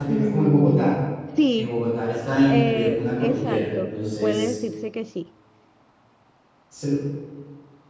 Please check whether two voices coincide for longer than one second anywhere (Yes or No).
Yes